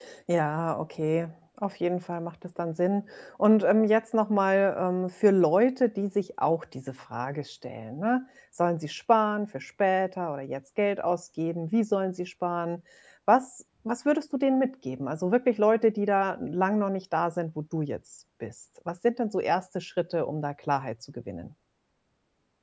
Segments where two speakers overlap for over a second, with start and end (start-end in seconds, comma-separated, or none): none